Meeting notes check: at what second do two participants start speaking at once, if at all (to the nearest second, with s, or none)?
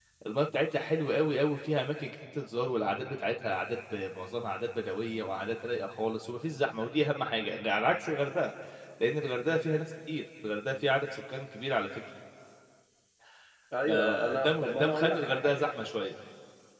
14 s